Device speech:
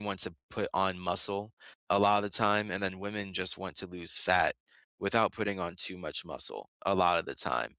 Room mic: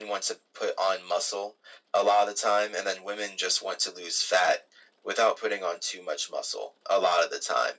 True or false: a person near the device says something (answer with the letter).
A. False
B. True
A